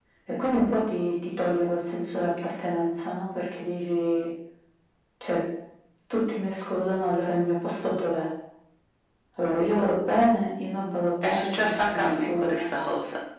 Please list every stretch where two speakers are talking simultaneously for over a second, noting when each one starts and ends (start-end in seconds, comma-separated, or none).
11.2-12.7